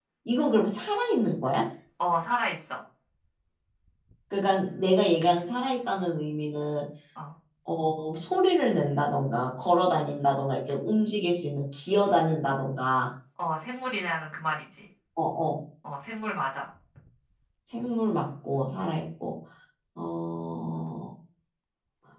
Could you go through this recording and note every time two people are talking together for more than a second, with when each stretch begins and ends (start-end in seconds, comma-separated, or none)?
none